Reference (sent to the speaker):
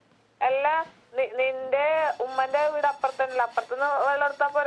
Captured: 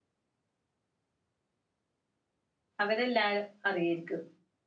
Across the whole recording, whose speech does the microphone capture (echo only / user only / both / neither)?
user only